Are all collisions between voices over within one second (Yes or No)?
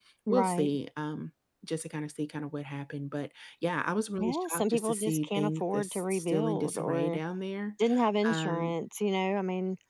No